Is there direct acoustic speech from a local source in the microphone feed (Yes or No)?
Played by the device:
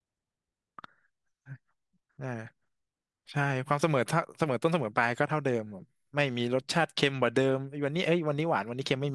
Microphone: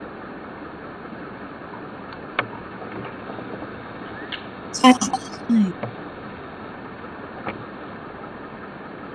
Yes